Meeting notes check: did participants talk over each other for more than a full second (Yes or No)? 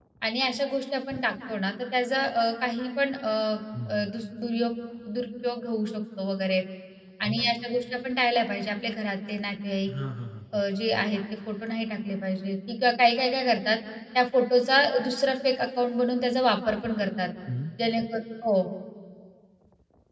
No